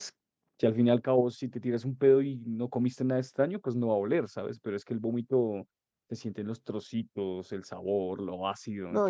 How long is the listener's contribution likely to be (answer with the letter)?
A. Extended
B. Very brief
A